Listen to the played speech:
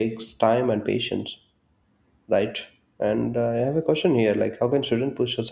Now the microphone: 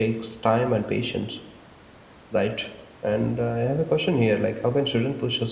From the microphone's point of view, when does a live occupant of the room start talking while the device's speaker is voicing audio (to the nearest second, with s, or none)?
none